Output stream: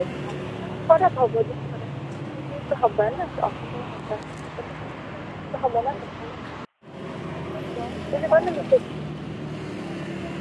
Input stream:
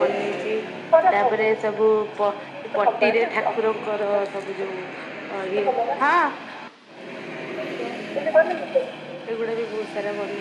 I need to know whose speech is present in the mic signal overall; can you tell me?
both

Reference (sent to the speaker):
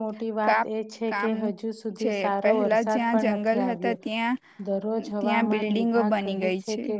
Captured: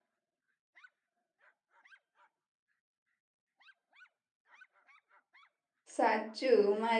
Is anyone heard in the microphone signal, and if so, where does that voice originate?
user only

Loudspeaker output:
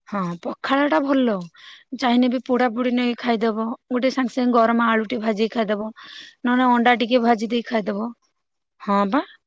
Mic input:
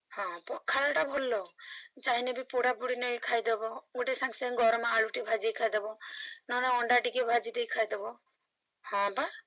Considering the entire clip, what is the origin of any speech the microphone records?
echo only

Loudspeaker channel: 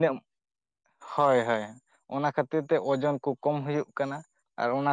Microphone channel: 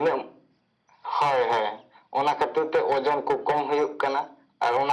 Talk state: echo only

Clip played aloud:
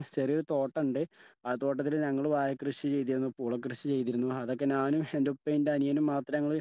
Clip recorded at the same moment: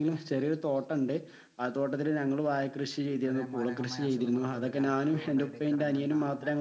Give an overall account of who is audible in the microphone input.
both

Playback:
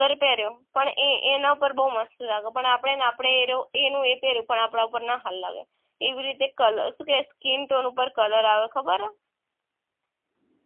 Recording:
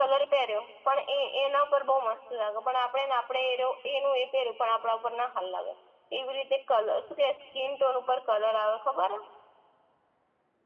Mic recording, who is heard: echo only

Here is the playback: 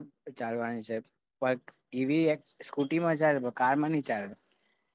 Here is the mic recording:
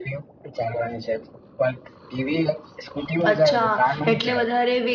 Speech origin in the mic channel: both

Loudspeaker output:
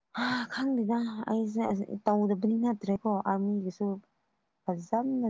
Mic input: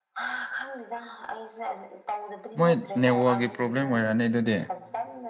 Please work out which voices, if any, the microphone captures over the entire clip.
both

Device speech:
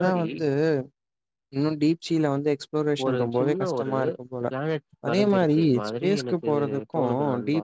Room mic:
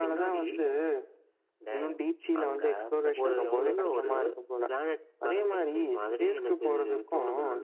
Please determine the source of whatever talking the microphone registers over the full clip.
both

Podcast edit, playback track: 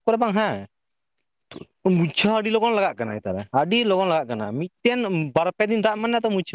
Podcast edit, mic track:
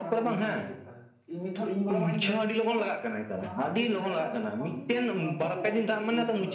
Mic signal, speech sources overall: both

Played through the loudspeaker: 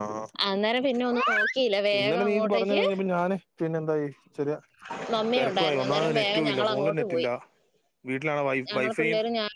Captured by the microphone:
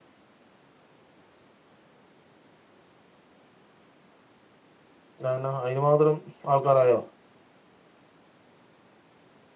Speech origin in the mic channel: user only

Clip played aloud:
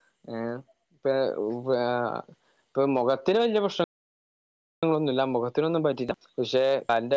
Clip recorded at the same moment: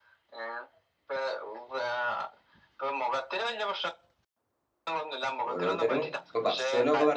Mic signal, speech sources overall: both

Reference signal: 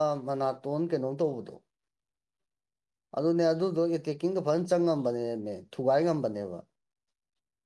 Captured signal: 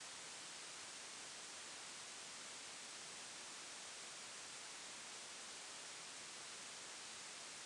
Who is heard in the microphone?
neither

